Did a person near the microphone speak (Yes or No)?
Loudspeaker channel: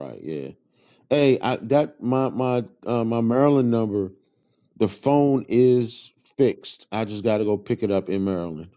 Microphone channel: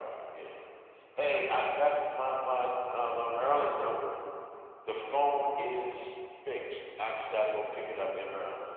No